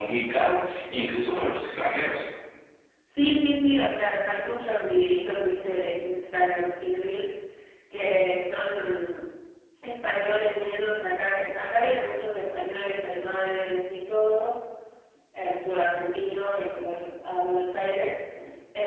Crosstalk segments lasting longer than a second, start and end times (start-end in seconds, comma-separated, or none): none